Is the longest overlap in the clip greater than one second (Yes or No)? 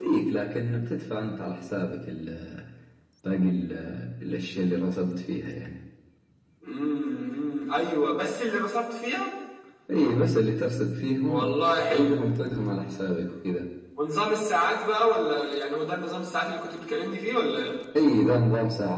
No